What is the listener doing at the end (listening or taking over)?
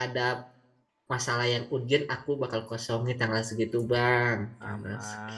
taking over